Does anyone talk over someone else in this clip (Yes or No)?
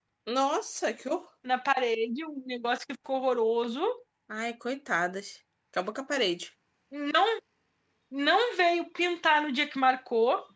No